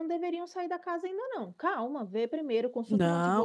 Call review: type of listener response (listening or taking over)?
taking over